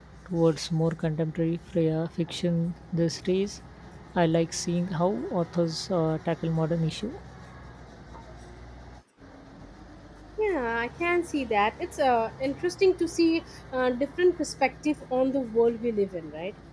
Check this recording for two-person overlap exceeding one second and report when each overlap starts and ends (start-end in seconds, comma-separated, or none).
none